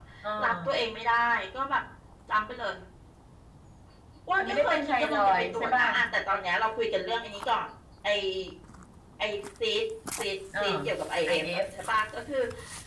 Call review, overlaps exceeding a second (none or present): present